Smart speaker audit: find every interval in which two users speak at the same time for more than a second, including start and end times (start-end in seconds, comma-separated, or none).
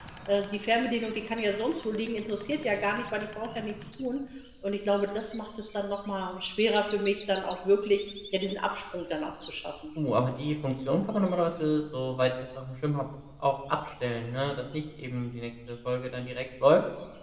none